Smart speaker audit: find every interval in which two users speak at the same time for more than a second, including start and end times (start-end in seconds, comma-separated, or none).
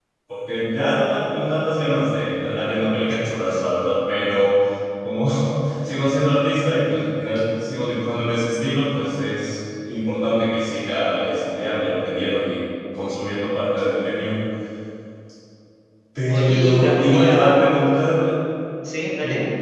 16.3-17.6